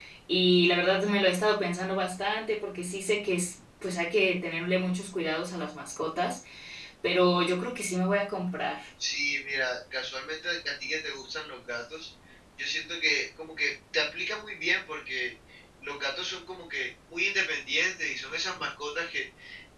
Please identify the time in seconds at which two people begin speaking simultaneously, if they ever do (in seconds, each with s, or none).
none